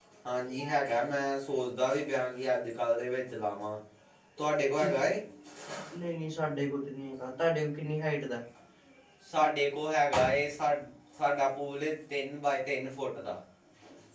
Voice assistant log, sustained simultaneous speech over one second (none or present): none